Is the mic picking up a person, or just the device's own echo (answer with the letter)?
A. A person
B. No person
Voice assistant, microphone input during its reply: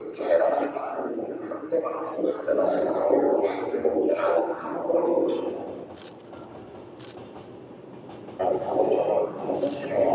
B